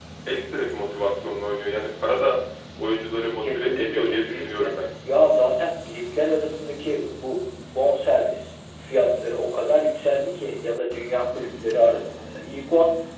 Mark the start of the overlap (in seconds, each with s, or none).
3.4 s